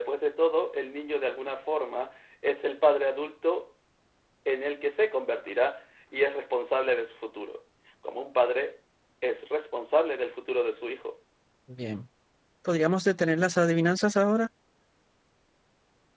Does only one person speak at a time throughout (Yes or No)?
Yes